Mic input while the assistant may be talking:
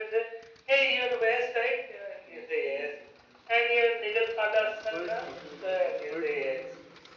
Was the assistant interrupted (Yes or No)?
Yes